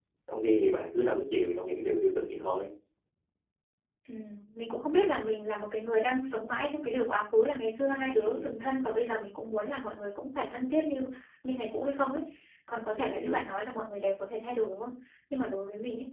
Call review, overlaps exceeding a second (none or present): none